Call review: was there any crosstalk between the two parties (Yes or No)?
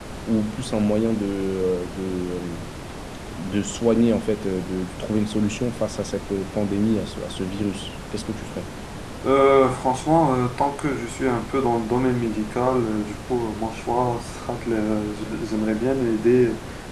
No